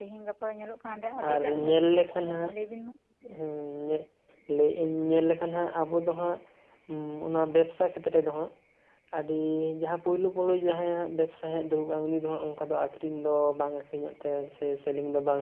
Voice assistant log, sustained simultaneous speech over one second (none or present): none